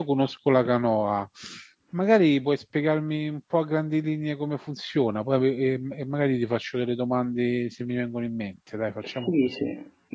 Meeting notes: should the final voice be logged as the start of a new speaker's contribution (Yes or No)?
Yes